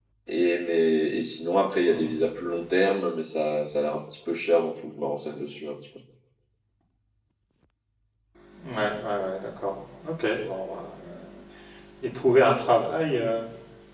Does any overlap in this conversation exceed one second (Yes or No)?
No